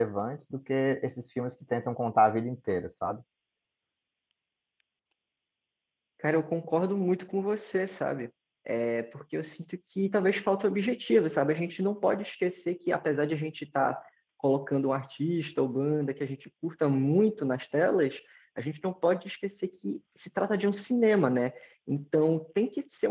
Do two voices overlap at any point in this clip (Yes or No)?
No